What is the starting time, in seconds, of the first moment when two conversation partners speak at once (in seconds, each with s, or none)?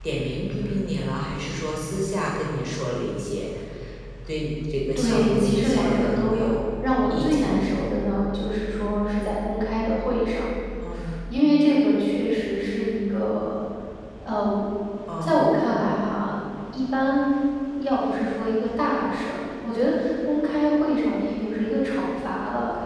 5.0 s